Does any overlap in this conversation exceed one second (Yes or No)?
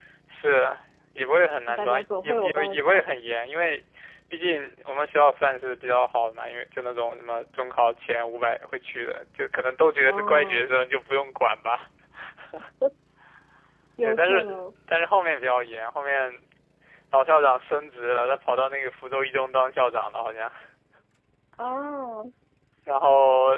Yes